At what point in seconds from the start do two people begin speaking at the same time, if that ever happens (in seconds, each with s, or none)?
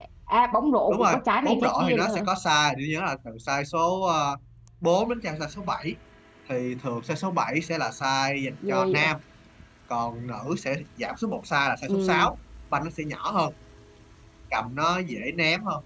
0.9 s